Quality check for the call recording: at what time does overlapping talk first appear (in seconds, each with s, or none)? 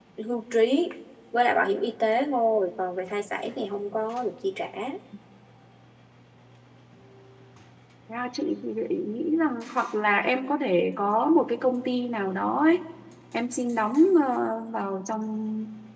none